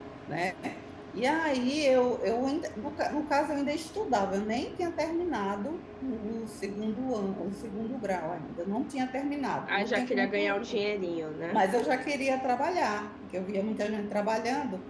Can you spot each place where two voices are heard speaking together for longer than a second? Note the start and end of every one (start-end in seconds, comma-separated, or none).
9.7-10.9